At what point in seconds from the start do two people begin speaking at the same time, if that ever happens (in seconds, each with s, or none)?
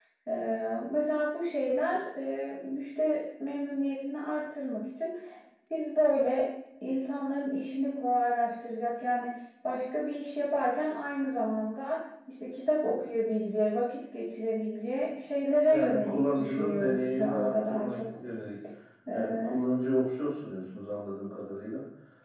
15.6 s